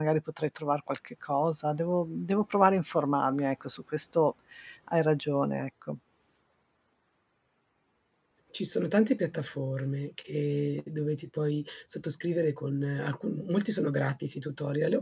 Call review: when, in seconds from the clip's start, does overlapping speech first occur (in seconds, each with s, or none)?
none